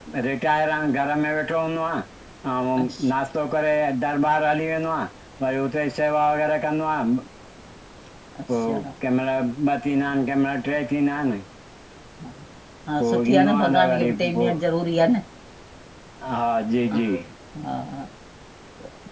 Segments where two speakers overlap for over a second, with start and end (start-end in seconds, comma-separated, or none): 13.0-14.5